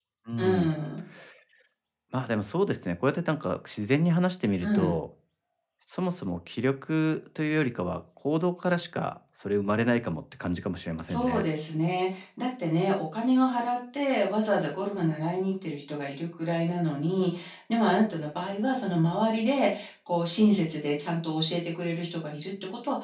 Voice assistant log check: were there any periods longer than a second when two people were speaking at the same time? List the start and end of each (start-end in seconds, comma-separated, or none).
none